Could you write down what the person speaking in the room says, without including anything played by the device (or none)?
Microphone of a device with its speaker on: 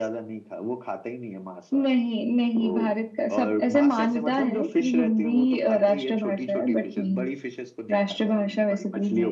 none